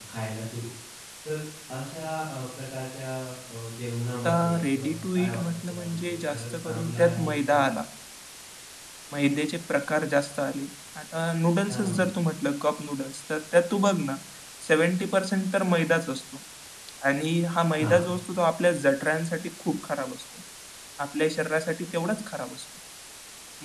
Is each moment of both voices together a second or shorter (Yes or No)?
No